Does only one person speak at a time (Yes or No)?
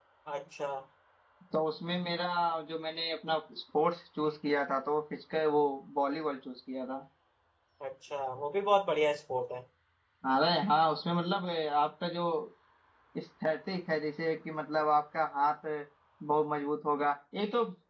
Yes